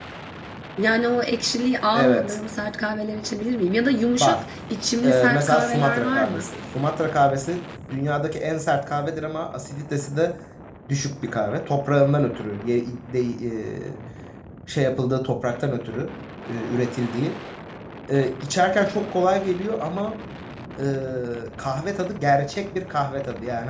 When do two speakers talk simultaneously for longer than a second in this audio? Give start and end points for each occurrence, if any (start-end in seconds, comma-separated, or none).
5.0-6.5